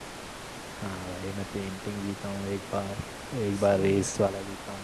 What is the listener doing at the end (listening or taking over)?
listening